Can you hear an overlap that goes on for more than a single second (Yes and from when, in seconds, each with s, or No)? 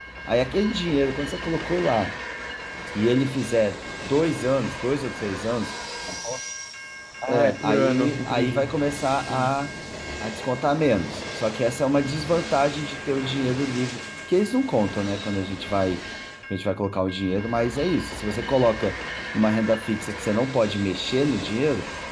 Yes, from 7.3 s